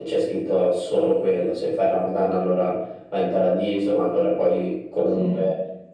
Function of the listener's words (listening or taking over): listening